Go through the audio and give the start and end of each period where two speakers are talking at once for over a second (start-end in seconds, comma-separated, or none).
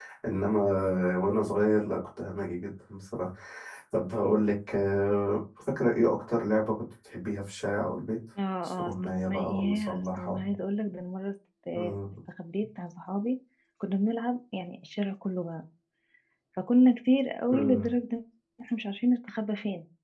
8.6-10.5